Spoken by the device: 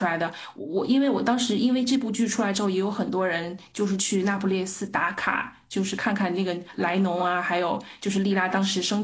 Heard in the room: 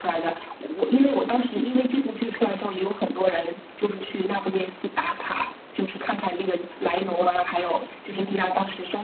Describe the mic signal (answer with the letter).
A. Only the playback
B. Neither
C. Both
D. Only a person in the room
A